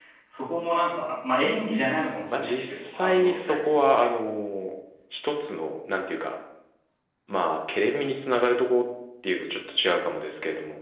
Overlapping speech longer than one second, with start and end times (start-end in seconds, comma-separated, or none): 2.3-4.1